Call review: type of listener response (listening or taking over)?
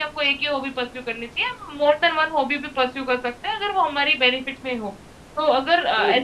listening